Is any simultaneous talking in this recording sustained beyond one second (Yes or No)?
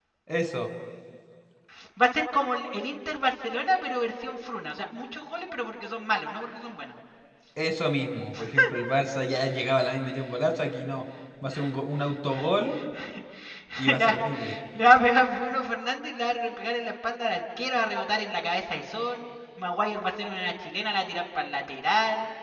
No